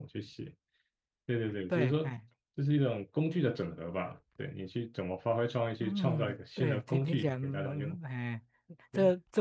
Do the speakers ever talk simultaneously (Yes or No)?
Yes